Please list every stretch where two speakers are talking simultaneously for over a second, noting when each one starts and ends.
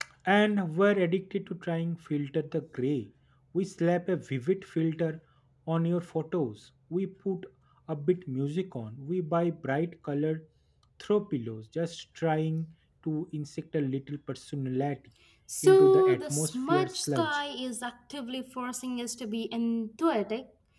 15.6-17.4

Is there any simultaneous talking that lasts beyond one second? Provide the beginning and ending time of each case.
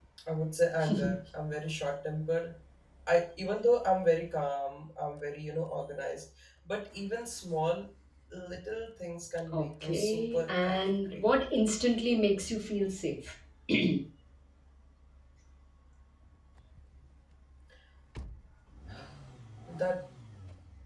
9.5-11.2

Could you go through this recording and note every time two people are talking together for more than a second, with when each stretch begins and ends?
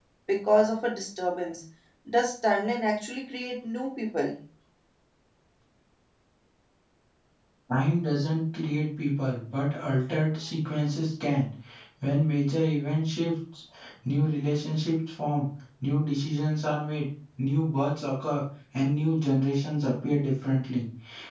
none

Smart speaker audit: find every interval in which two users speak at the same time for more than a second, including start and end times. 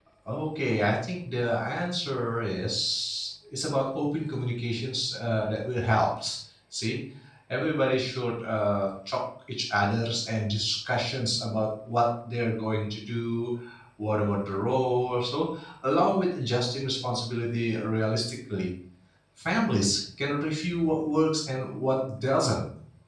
none

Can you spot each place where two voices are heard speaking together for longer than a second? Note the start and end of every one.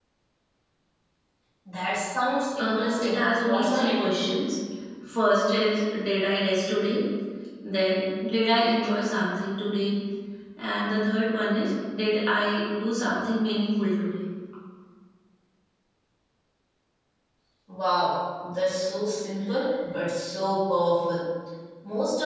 2.6-4.0

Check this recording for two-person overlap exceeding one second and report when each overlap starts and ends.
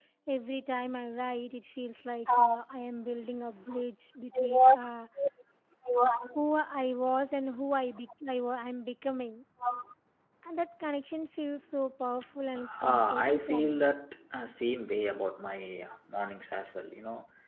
12.6-13.9

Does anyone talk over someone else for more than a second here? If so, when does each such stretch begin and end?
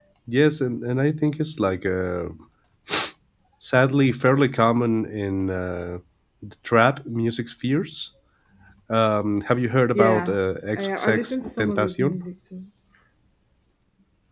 10.8-12.2

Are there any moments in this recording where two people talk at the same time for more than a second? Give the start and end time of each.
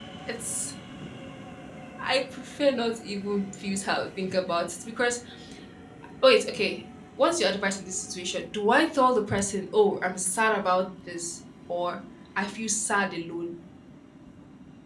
none

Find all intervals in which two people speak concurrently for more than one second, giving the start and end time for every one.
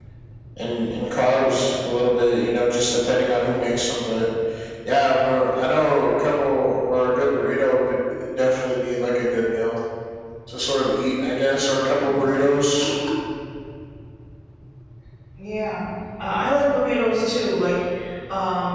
none

